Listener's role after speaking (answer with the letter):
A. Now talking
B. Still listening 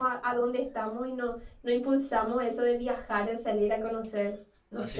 A